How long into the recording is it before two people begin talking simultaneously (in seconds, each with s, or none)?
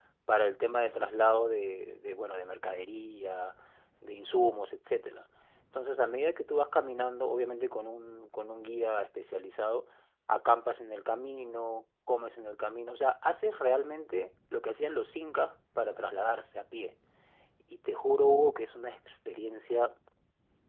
none